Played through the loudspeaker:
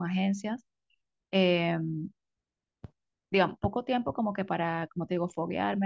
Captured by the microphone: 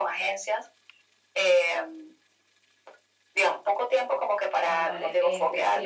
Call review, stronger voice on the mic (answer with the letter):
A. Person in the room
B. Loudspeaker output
B